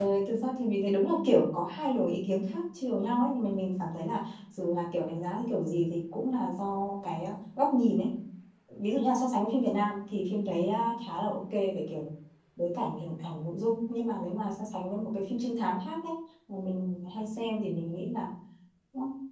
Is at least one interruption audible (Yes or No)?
No